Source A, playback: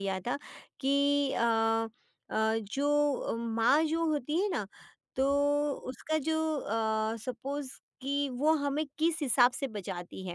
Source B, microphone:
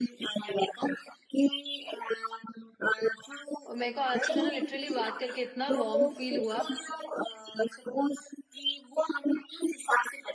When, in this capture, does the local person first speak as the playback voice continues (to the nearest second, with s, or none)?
4 s